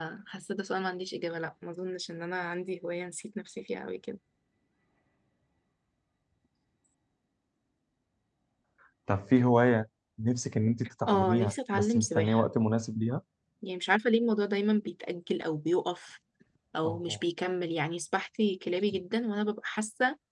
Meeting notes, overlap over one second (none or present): present